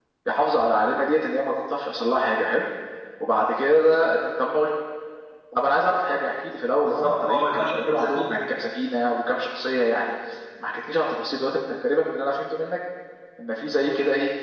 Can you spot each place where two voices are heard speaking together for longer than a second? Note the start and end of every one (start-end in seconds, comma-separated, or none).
6.8-8.4